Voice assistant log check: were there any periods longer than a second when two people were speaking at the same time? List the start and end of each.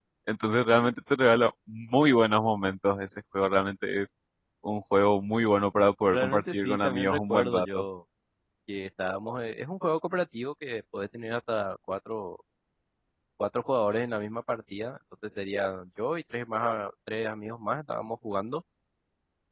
6.1-7.8

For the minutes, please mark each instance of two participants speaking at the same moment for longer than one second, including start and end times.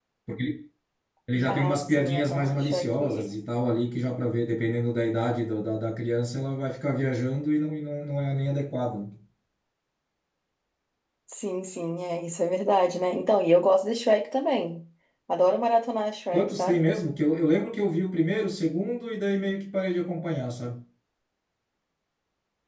1.5-3.3

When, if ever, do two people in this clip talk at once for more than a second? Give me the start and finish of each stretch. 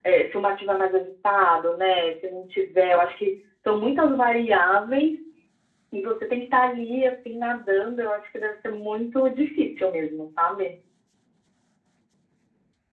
none

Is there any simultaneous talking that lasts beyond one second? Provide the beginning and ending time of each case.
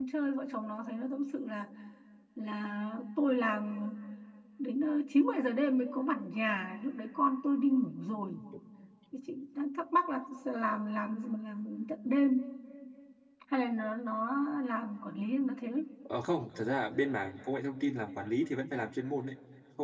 none

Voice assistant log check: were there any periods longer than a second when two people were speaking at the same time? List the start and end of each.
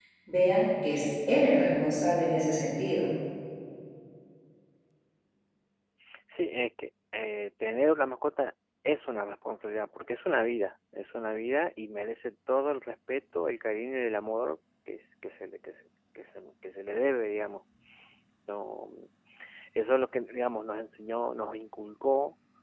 none

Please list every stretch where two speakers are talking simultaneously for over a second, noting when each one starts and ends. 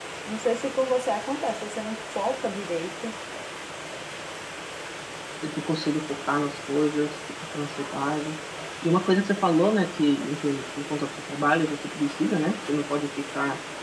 none

